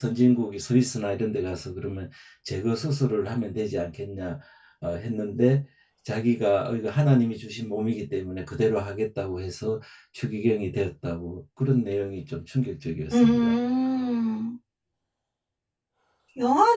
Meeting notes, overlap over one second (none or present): none